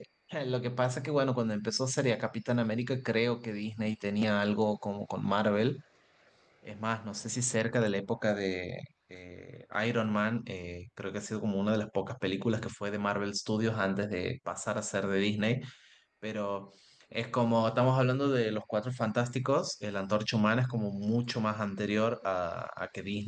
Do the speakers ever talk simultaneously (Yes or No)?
No